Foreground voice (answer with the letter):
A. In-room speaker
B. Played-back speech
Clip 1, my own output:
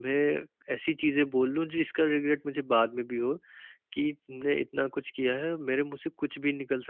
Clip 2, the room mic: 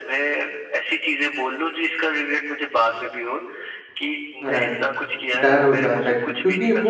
A